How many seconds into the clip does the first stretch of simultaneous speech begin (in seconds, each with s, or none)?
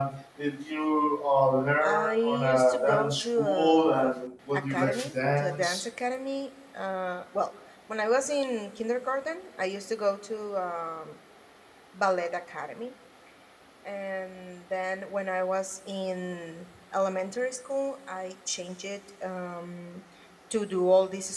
1.8 s